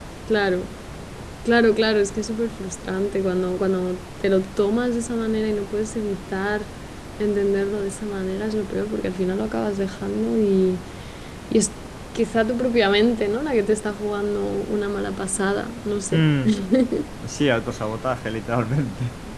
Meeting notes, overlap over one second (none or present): none